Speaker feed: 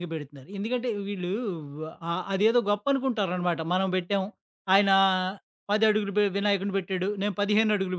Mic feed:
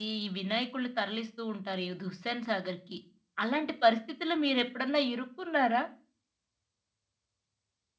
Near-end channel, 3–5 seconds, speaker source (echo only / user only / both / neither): user only